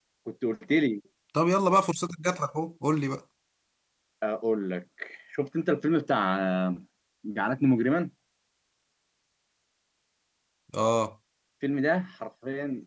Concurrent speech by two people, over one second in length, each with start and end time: none

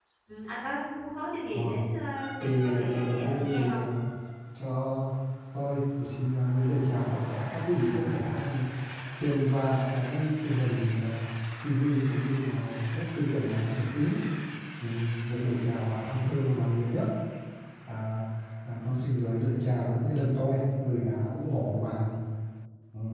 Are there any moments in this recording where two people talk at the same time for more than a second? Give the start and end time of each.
2.4-3.8

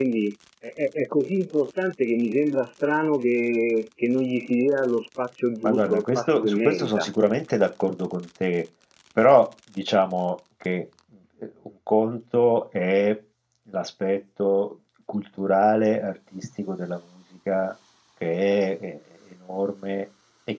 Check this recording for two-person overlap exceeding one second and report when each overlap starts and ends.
5.6-7.1

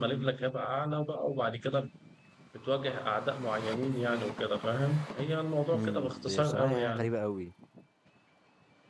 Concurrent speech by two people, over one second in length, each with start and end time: 5.7-7.1

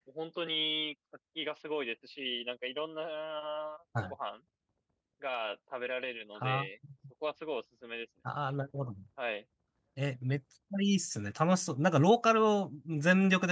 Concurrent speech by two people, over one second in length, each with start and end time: none

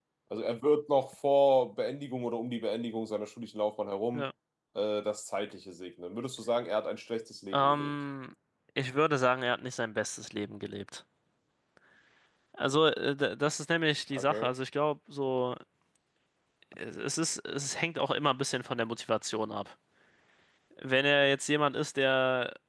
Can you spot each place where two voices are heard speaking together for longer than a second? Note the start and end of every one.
none

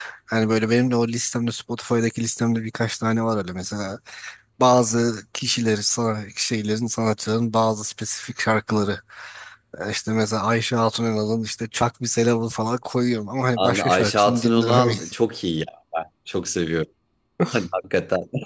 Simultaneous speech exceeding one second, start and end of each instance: 13.6-14.9

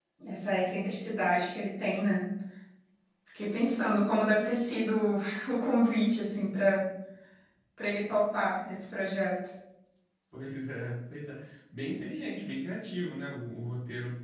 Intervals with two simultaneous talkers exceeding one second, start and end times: none

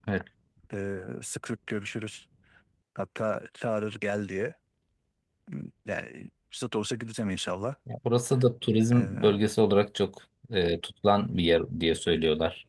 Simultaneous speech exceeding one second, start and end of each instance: none

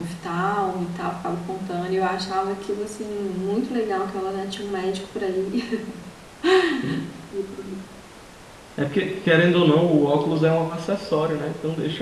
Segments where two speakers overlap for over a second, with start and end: none

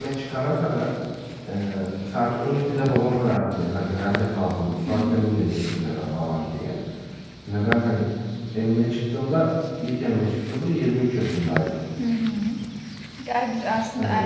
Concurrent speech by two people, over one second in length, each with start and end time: none

